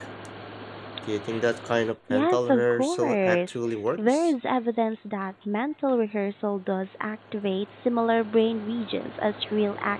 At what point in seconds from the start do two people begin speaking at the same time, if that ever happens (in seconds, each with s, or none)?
2.1 s